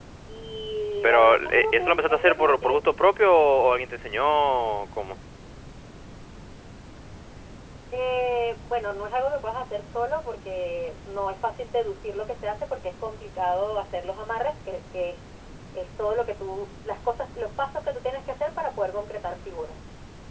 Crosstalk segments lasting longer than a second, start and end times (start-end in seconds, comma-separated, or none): 1.0-2.8